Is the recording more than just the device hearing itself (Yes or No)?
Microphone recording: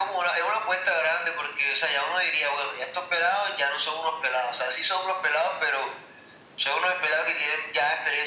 No